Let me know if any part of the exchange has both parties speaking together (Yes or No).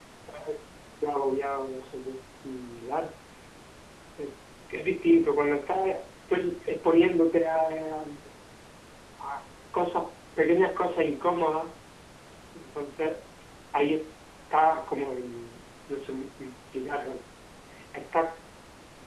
No